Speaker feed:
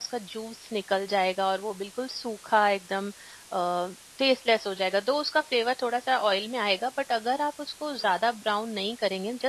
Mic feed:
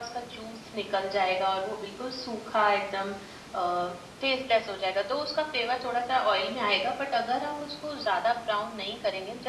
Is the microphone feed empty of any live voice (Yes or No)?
Yes